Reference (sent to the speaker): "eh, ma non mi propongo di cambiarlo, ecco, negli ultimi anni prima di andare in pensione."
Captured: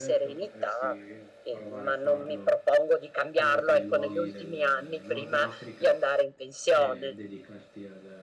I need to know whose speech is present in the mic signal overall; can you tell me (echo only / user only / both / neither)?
both